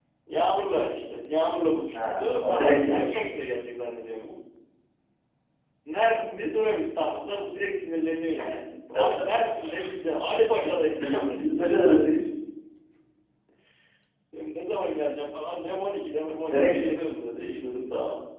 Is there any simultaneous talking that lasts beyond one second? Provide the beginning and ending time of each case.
1.9-3.3

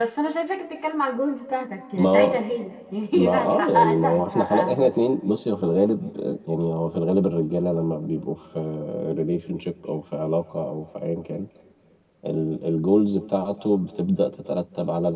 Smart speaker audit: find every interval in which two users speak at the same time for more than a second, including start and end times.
3.1-4.9

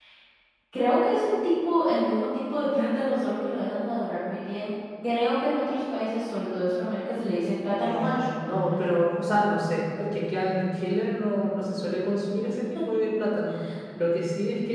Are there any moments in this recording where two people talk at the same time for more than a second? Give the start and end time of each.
none

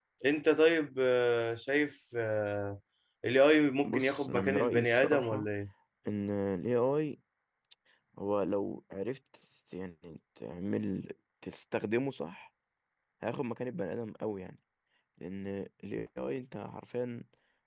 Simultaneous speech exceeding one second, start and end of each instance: 3.8-5.4

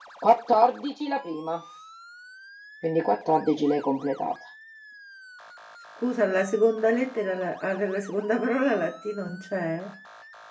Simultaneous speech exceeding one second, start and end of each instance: none

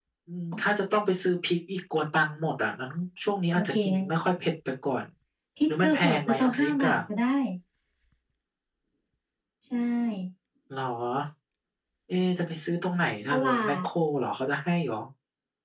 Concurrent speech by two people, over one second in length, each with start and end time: 5.7-7.0

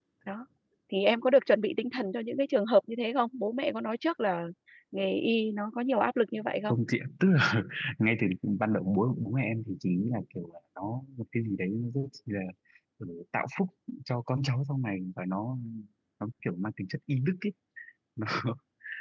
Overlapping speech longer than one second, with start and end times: none

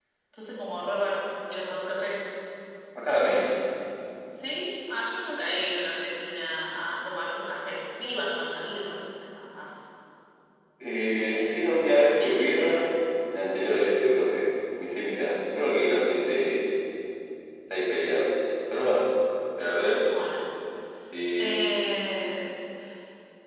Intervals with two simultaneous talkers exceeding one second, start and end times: 11.3-12.8

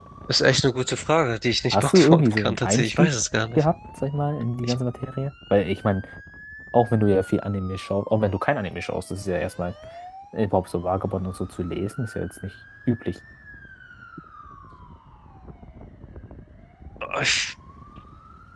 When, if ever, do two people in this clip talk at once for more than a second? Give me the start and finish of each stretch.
1.7-3.1

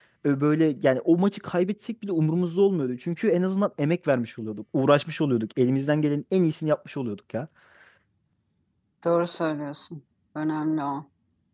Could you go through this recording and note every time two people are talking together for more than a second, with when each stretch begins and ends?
none

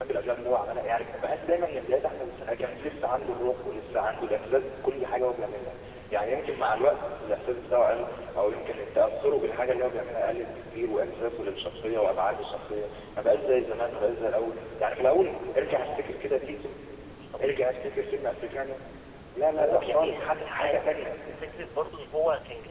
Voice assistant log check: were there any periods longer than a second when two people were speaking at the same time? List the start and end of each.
19.6-20.9

